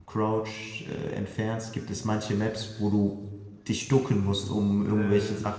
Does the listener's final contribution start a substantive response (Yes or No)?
No